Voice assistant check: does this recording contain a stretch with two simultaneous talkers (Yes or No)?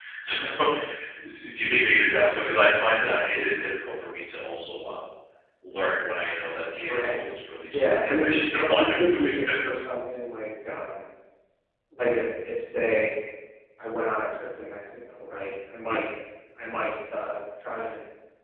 Yes